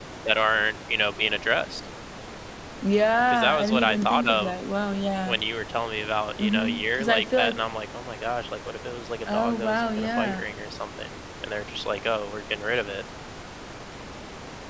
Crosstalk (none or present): present